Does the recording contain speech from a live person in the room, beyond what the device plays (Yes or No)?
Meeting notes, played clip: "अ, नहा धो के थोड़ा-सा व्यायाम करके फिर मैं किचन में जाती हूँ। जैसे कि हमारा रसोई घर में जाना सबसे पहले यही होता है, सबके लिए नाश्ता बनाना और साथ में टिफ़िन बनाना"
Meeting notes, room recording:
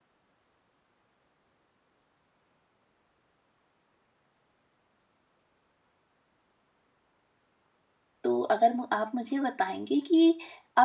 Yes